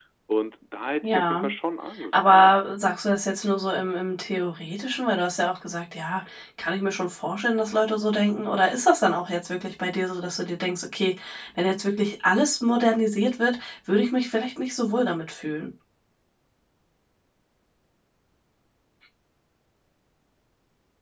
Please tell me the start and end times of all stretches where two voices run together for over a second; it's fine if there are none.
none

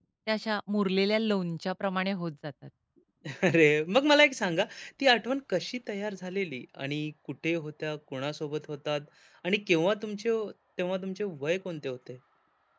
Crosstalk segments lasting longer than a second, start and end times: none

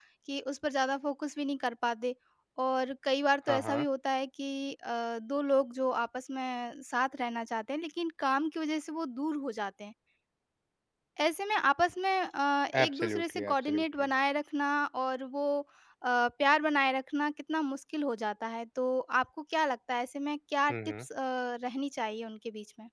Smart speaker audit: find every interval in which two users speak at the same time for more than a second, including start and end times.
12.8-14.1

